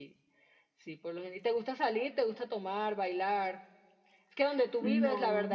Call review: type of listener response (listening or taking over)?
listening